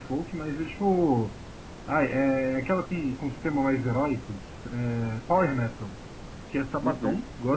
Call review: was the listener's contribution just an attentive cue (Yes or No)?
Yes